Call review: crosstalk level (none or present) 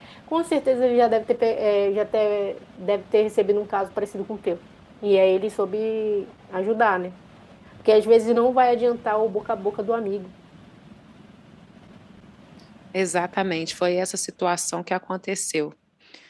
none